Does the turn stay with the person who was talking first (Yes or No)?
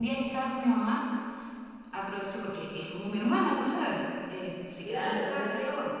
No